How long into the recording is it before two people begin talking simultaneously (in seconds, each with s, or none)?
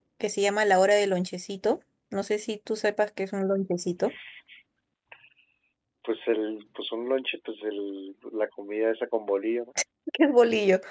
none